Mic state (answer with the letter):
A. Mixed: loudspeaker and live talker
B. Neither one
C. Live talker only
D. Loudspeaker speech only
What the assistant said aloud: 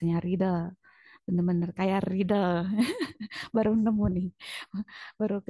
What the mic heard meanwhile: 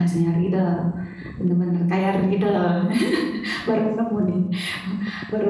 D